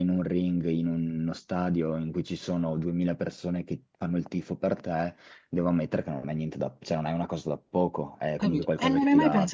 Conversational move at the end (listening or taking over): taking over